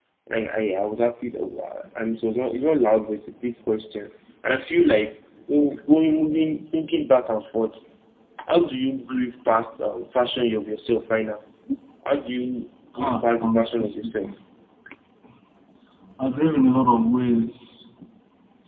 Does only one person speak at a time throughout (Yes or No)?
No